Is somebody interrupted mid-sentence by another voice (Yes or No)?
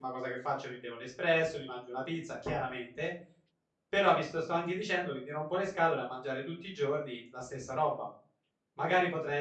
No